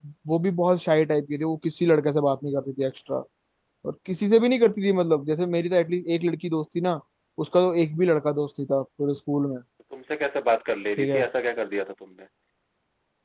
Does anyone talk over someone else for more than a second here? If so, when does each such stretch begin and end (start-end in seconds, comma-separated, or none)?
none